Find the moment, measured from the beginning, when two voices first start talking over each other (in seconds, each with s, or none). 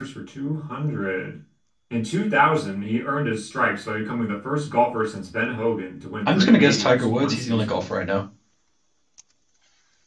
6.2 s